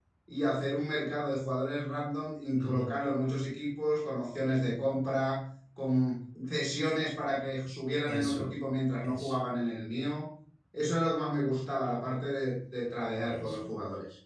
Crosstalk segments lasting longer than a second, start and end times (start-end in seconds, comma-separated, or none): none